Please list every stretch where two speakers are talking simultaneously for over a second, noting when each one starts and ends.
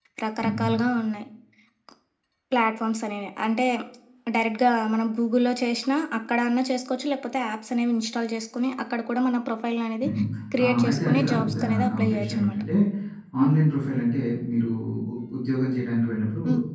10.6-12.6

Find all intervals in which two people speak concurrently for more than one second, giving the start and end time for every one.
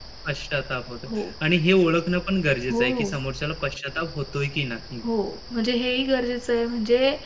none

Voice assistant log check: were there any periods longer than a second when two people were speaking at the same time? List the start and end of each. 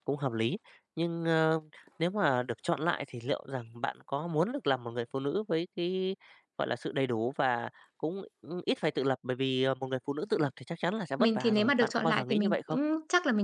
11.2-12.8

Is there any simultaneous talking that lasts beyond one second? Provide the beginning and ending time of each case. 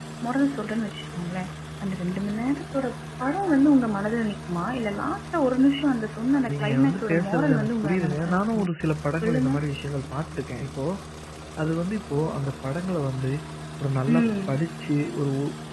6.4-8.7

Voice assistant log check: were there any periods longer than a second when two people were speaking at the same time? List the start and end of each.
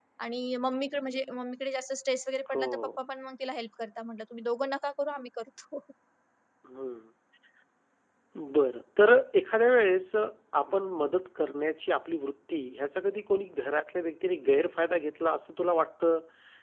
none

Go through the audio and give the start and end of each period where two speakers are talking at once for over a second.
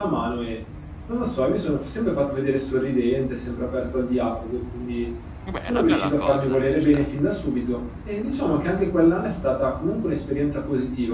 5.7-7.1

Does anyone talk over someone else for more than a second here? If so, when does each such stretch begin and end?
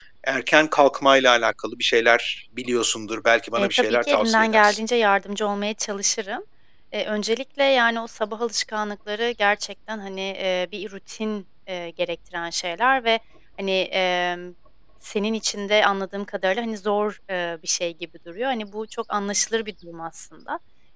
3.6-4.8

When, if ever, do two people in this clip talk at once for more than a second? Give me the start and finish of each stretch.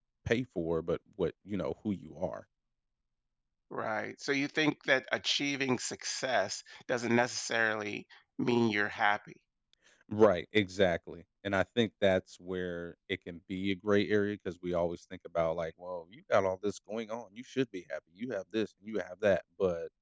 none

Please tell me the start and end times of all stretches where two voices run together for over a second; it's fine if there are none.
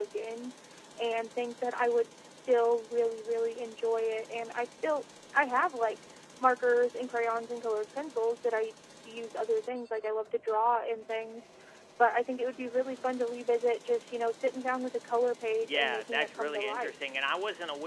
15.6-16.9

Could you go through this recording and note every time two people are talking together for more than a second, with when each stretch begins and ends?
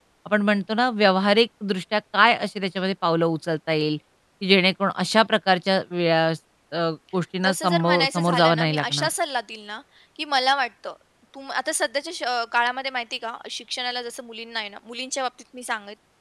7.4-9.1

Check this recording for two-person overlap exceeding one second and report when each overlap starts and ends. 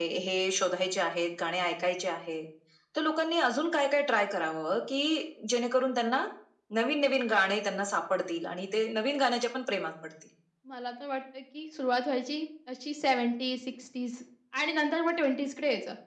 none

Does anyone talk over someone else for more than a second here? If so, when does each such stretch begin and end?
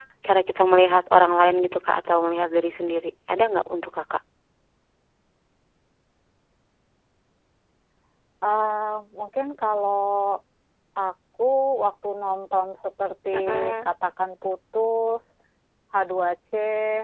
none

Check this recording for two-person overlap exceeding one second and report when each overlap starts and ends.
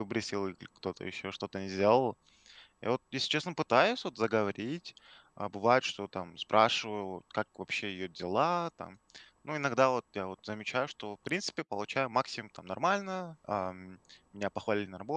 none

